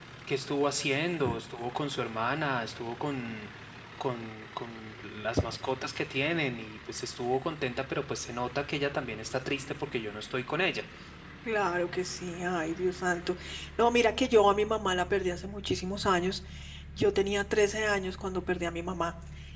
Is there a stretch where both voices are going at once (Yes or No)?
No